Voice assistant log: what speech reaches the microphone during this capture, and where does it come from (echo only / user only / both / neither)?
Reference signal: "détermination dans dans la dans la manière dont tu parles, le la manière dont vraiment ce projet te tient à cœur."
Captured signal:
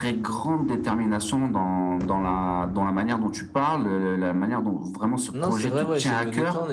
both